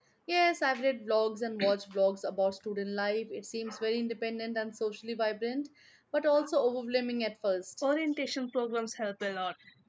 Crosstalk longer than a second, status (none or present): none